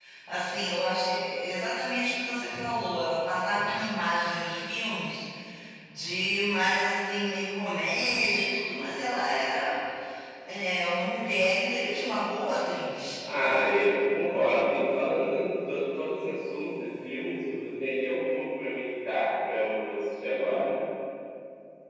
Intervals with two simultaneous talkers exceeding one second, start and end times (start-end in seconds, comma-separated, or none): none